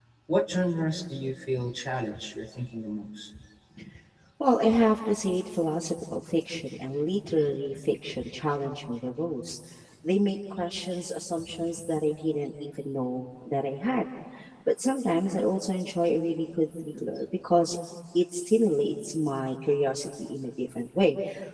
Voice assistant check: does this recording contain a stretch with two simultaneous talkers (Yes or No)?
No